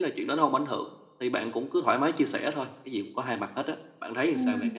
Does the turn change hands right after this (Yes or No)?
Yes